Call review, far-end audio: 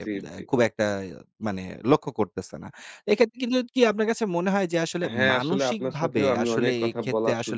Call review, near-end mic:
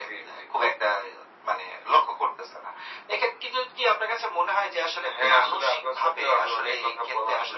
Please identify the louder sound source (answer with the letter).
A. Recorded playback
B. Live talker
A